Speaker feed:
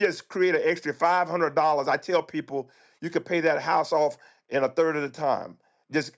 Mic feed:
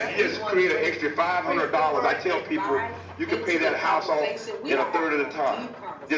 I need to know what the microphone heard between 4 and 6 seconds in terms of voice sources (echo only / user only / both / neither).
both